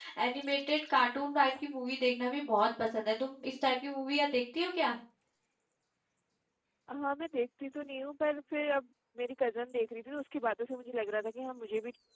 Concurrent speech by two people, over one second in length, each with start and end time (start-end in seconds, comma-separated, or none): none